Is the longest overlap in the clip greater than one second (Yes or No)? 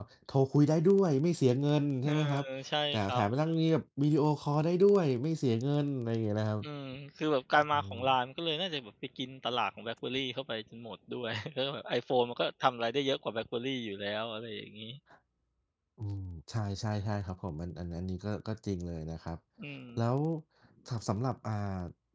No